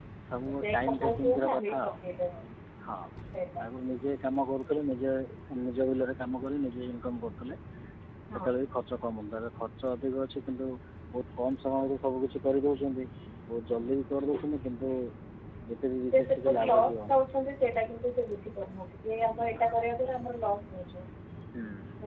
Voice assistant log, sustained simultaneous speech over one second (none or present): present